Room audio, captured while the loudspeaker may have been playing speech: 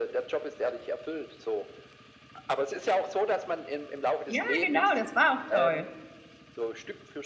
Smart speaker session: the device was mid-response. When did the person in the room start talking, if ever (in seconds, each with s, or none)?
4.3 s